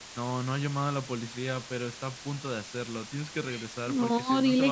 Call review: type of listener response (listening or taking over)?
taking over